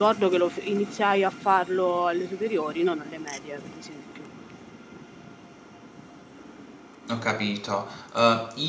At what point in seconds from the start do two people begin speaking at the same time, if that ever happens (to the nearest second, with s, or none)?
none